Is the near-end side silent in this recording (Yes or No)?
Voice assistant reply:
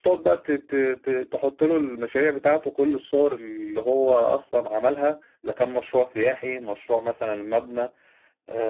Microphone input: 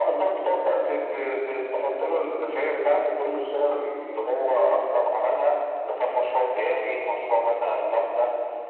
Yes